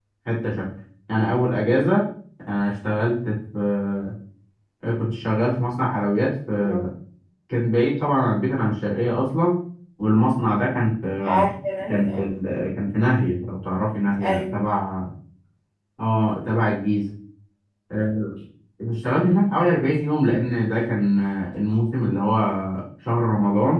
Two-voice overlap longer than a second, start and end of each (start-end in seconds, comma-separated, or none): none